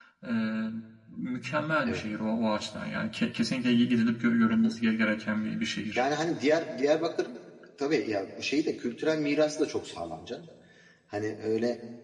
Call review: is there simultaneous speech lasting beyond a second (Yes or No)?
No